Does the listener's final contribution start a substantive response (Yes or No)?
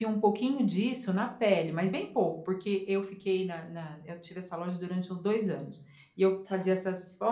No